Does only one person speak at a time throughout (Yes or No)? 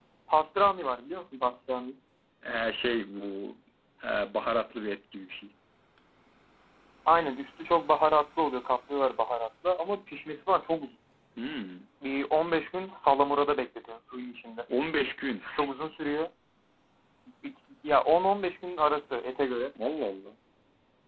Yes